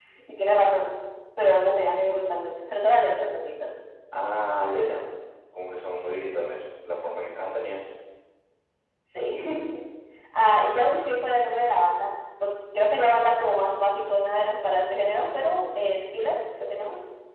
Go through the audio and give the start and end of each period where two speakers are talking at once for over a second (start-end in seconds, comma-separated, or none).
none